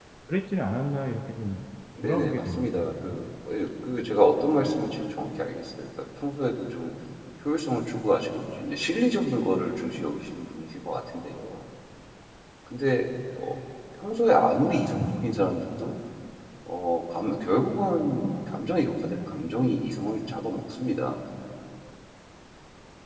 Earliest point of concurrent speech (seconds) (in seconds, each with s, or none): 2.0 s